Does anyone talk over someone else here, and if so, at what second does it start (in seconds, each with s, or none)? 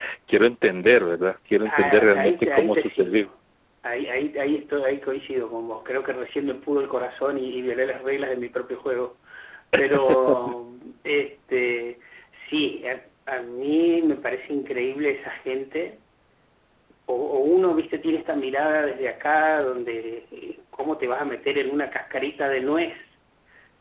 1.6 s